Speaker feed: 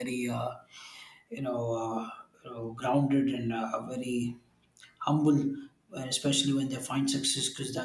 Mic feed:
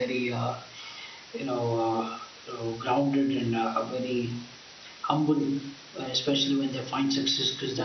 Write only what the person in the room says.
none

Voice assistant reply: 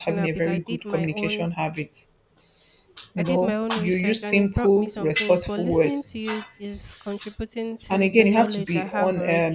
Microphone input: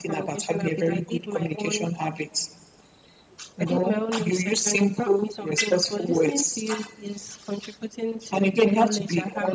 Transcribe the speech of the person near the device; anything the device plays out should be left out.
none

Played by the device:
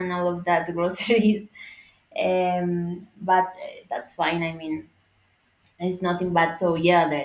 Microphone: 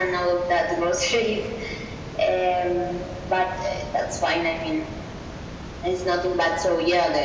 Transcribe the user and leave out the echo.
none

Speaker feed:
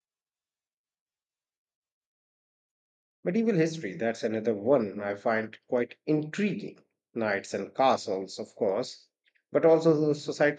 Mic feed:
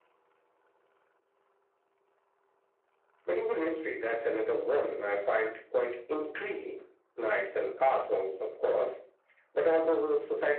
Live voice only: none

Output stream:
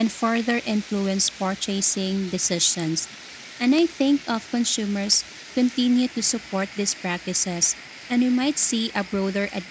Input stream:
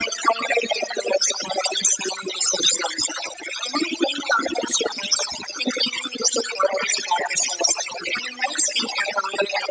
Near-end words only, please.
none

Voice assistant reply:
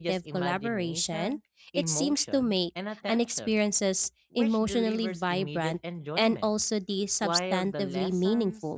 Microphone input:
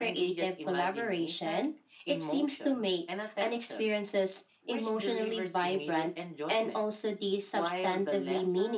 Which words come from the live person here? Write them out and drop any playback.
none

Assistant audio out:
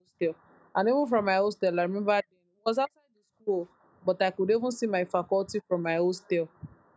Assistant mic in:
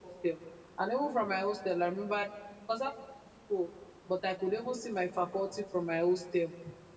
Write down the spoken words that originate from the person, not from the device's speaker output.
none

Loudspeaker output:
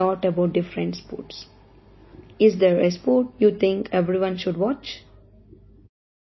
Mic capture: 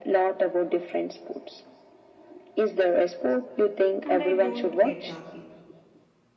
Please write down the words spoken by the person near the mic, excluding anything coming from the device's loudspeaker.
and I don't get the appeal.

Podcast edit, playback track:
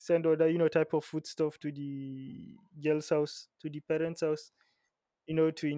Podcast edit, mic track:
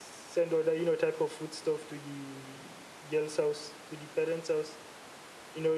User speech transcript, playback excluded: none

